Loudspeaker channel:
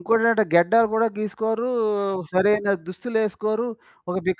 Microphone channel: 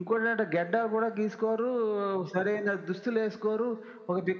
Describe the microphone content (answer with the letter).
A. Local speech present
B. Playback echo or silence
B